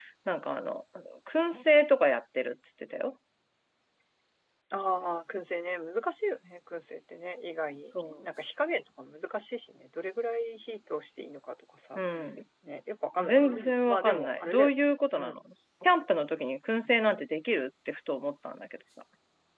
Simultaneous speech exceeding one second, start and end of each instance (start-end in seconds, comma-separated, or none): 13.2-14.7